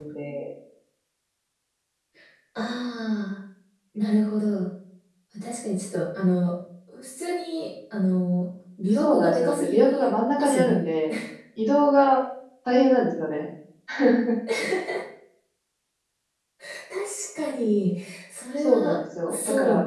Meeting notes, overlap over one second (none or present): present